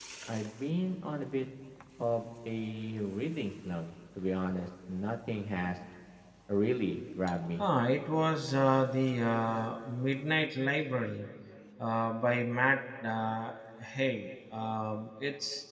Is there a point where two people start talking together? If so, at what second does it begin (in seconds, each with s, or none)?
none